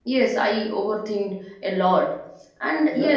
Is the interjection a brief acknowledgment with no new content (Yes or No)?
Yes